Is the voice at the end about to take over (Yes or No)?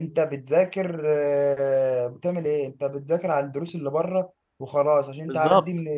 No